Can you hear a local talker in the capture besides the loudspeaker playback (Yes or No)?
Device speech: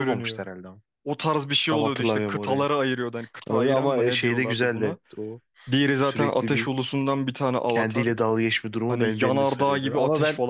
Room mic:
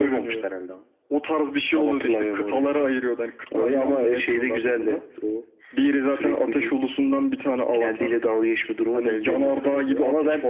No